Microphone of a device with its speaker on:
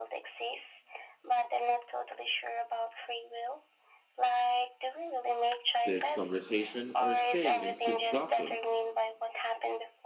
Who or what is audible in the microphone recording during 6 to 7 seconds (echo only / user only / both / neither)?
both